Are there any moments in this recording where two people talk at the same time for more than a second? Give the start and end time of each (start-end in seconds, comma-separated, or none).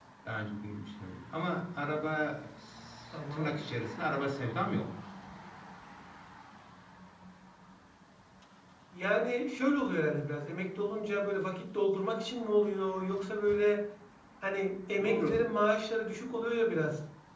none